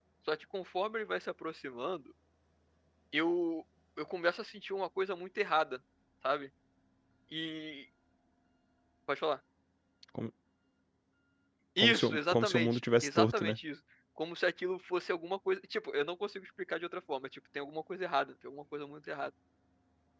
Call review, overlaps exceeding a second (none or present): present